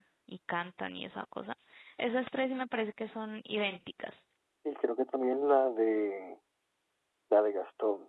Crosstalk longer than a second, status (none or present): none